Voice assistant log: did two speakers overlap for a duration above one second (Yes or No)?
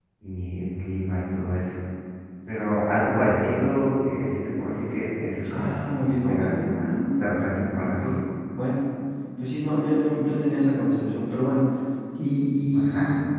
Yes